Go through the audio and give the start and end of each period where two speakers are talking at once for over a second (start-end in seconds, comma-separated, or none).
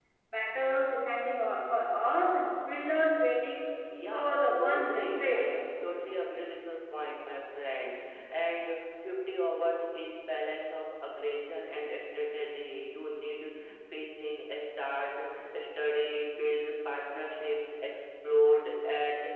4.1-5.4